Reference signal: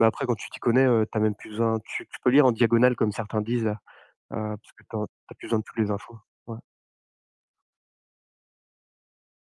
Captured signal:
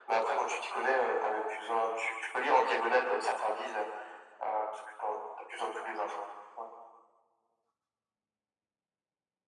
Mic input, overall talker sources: echo only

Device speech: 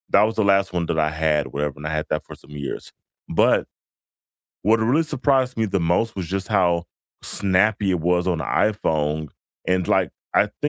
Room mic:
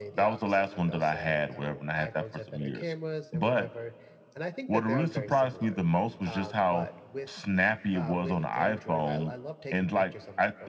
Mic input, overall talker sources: both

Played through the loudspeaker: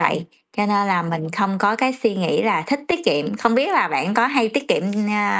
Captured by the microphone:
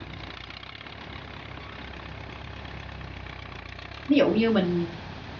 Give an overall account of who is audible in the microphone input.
user only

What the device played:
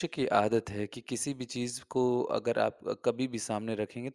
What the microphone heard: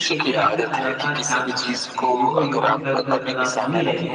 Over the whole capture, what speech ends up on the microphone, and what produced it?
both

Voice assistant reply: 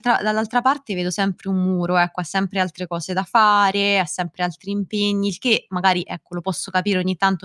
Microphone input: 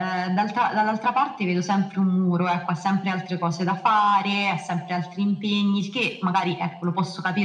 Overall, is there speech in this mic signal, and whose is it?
echo only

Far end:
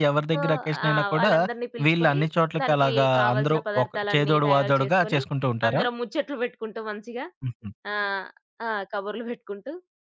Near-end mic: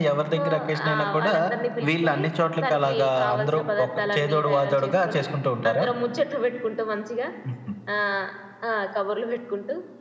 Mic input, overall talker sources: echo only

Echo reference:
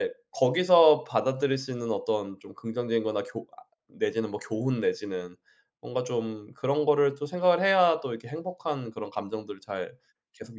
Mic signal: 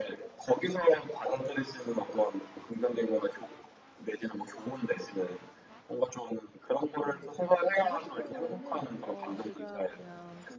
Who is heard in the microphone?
both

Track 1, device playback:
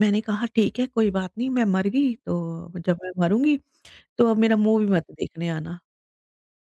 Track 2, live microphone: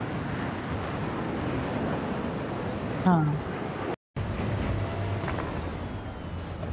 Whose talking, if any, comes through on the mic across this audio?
user only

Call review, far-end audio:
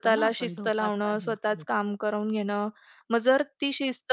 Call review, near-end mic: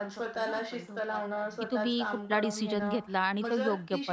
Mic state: both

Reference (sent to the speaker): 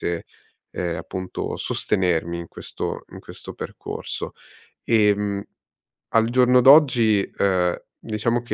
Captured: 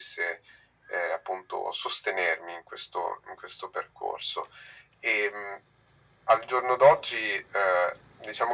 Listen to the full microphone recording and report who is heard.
echo only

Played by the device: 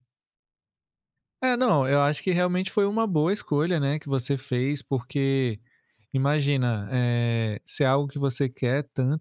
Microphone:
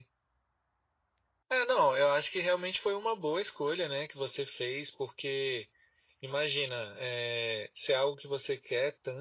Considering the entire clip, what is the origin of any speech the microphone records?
echo only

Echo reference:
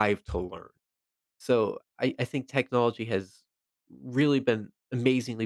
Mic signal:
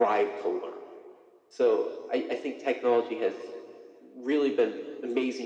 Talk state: echo only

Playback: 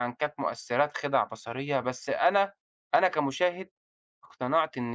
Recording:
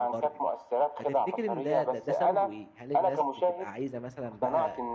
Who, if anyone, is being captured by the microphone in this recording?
both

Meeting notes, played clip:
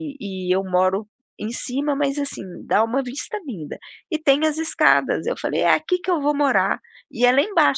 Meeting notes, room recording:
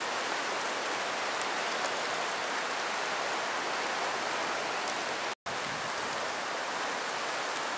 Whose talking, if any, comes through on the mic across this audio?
neither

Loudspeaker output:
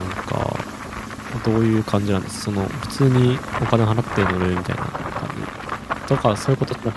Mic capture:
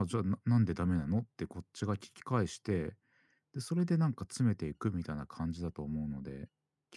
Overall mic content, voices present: user only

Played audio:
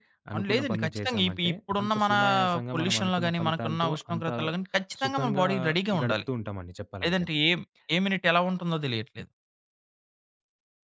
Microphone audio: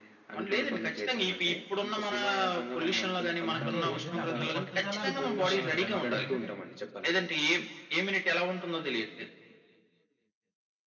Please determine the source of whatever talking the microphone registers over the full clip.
both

